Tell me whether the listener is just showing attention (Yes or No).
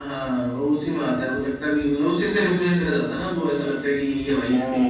No